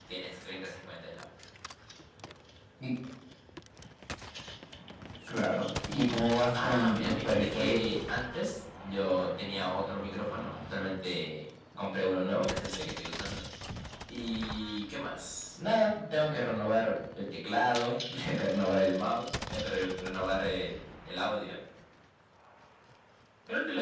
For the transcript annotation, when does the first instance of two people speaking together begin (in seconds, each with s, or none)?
6.5 s